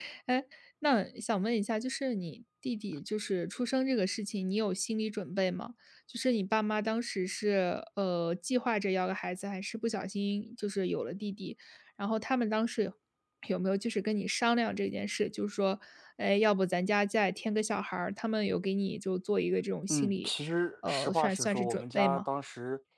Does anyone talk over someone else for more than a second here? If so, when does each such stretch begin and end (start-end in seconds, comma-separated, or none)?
20.9-22.2